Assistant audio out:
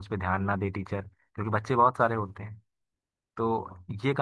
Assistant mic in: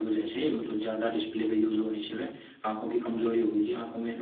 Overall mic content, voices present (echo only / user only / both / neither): user only